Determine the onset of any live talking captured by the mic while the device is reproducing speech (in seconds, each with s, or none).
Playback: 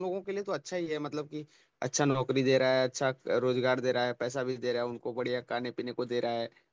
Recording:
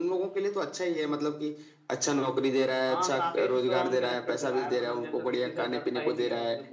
2.8 s